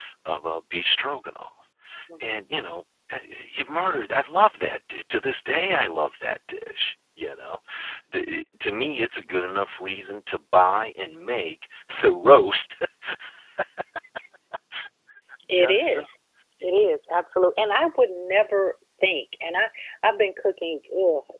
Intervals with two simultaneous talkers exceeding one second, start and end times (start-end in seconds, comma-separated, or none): none